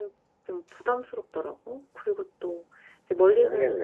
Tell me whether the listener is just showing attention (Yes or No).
Yes